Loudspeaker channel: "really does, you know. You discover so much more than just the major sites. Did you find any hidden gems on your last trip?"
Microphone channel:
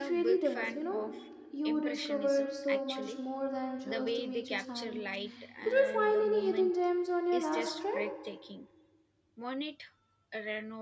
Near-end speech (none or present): present